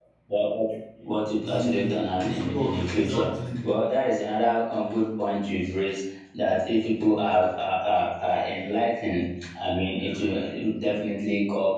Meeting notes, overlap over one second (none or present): present